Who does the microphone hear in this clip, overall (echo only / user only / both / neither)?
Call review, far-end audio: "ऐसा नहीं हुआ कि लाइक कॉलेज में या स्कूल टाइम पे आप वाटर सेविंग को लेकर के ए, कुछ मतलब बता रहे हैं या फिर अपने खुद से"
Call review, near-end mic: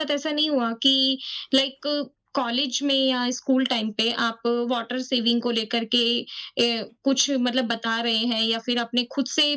echo only